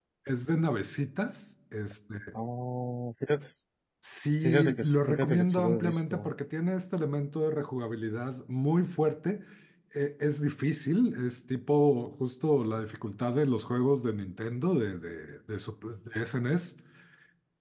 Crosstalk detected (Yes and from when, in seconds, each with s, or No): Yes, from 4.4 s